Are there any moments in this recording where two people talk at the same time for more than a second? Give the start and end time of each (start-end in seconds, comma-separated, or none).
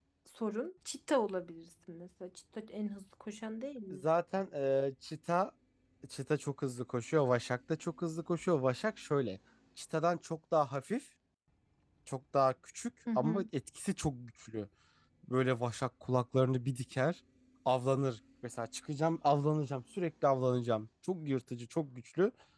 none